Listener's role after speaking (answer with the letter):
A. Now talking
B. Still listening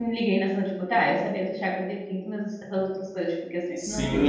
A